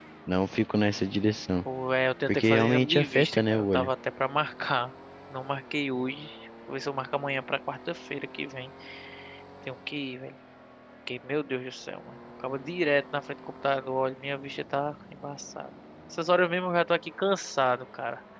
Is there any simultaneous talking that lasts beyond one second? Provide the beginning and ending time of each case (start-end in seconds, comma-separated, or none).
2.3-3.9